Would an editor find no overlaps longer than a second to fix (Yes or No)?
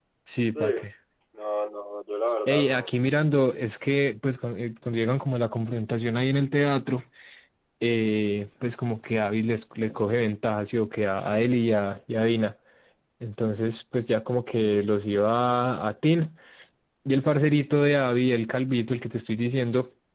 Yes